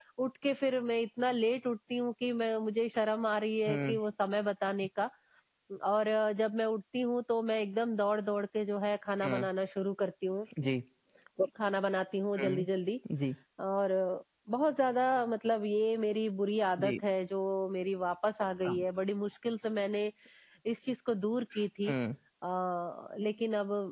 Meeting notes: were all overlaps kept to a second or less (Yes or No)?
Yes